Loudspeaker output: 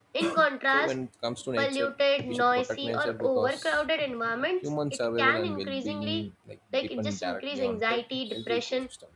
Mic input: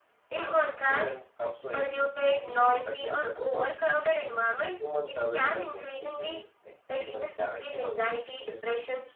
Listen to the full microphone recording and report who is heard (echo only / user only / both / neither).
echo only